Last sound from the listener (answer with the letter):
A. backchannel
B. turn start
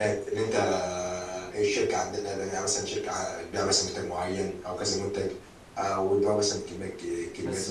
B